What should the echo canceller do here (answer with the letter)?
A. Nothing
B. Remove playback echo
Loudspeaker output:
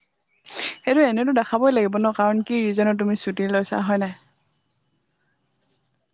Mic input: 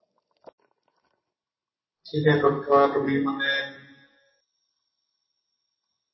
A